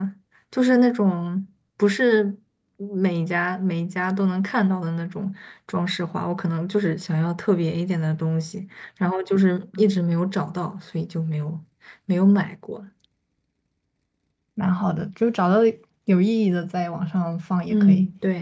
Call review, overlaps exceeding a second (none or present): none